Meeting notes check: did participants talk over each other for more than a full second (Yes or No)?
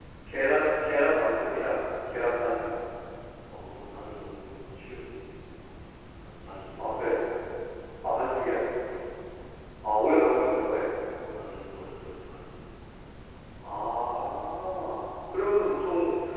No